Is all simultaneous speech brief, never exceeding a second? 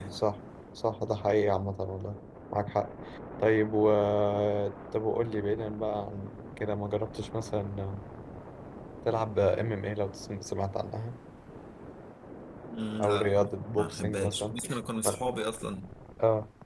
No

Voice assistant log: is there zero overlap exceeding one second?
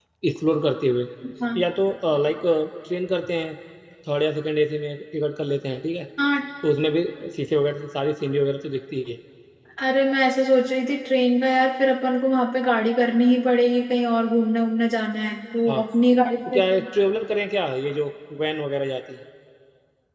Yes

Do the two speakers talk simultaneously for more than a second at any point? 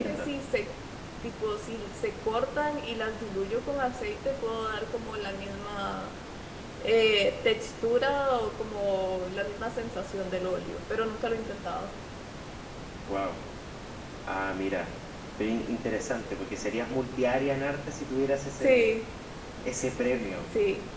No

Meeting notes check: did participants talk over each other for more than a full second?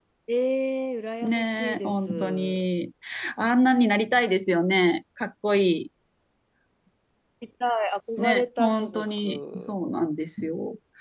Yes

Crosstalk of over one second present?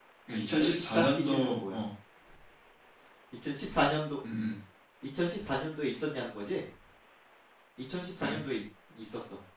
Yes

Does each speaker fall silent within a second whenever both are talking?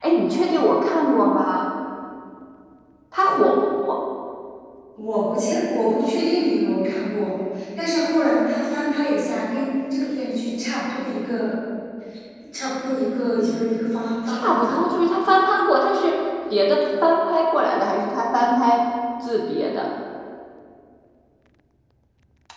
Yes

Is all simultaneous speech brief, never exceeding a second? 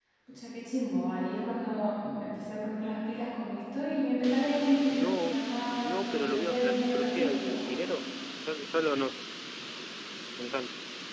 No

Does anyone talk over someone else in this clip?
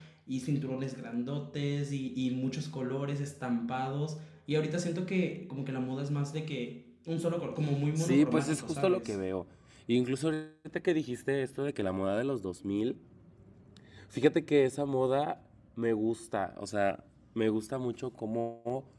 Yes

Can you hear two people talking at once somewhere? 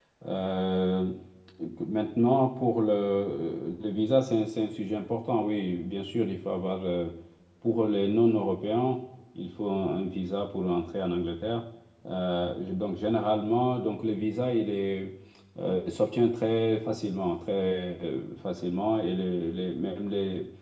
No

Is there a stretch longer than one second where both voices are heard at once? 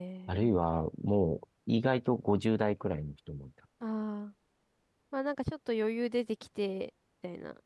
No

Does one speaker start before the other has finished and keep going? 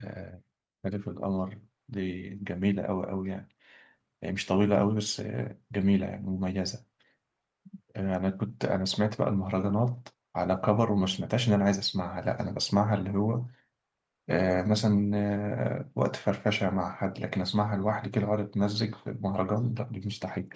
No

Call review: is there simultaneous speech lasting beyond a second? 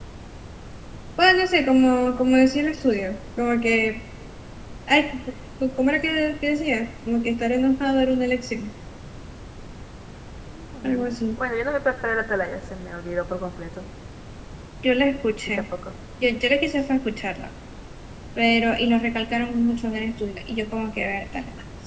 No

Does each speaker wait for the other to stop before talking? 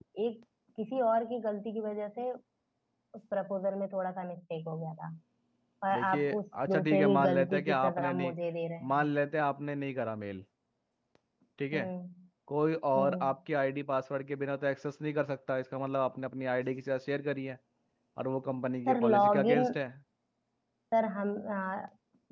No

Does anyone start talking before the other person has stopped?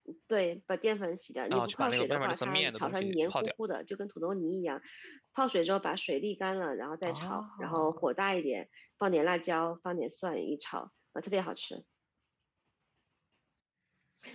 Yes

